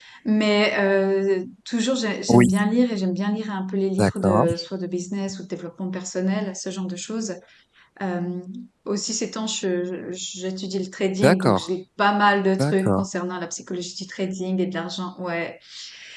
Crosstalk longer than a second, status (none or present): none